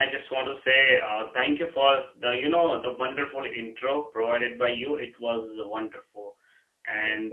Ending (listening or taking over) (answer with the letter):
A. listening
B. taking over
A